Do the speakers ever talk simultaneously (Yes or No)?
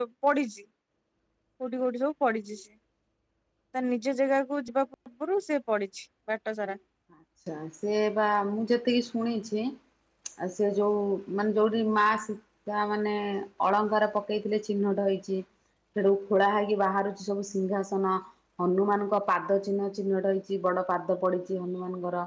No